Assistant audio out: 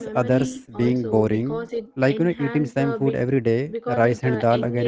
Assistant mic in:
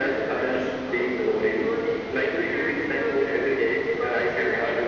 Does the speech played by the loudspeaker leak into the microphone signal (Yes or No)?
Yes